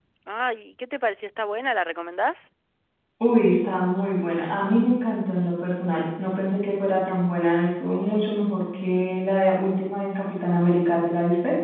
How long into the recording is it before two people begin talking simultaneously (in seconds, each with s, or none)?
none